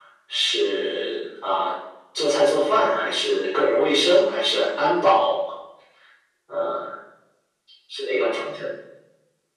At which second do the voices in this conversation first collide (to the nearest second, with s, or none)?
none